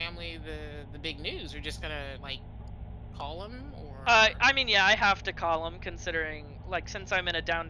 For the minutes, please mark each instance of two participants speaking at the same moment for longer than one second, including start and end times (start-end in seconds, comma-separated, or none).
none